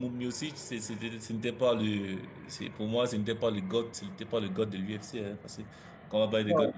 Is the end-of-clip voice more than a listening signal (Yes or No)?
Yes